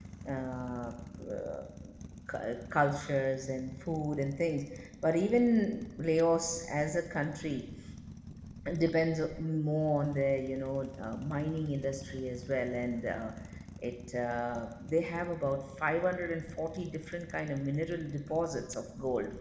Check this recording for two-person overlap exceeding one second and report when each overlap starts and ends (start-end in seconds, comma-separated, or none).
none